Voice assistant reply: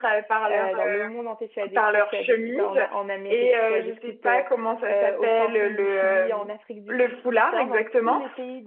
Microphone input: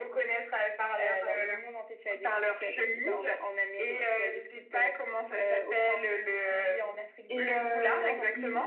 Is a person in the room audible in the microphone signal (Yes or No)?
Yes